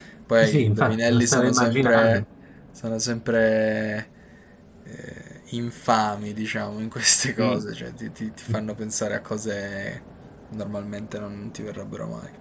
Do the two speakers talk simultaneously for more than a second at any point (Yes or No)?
Yes